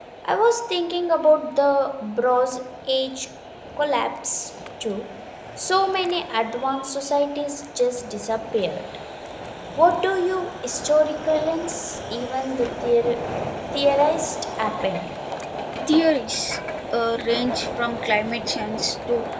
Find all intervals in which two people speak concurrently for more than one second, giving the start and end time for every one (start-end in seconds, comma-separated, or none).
none